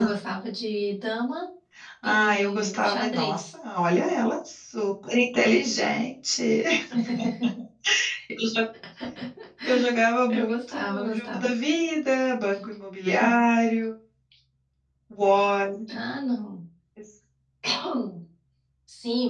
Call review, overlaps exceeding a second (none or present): present